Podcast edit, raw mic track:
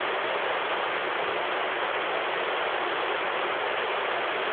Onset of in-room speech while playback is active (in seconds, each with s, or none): none